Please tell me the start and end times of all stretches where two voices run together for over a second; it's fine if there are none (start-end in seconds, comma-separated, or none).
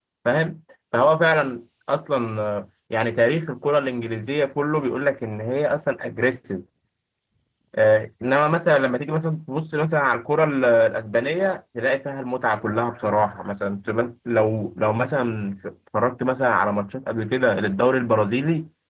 none